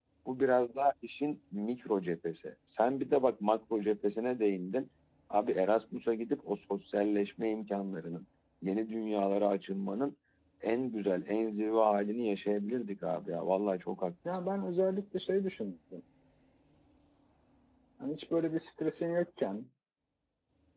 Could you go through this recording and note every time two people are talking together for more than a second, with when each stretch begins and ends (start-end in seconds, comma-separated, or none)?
none